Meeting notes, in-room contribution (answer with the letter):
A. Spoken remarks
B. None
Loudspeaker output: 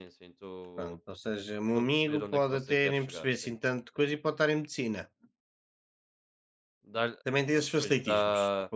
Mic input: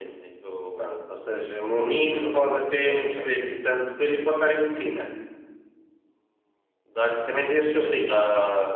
B